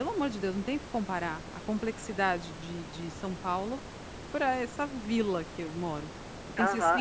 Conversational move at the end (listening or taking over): listening